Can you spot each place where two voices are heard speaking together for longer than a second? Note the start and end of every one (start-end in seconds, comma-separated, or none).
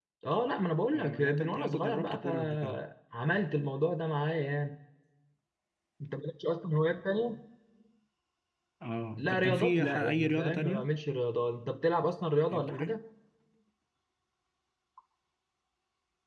0.9-2.8, 9.2-10.9